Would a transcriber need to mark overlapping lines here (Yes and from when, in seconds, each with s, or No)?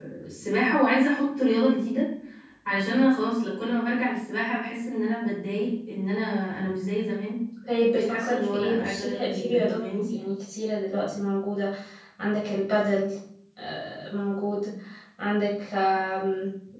Yes, from 7.9 s